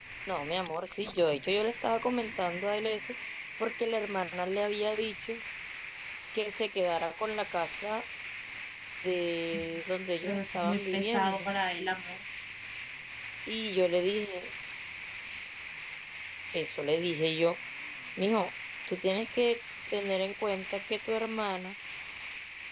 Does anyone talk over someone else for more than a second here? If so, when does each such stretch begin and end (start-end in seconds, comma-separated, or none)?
10.2-11.5